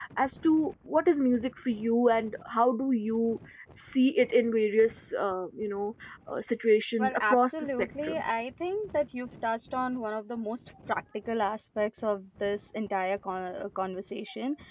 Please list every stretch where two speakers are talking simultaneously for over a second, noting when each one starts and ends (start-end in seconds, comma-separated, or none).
7.0-8.2